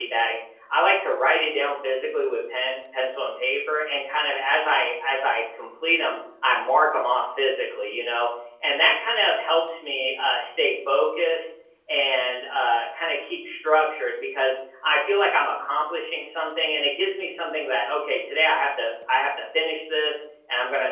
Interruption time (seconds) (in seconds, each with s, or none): none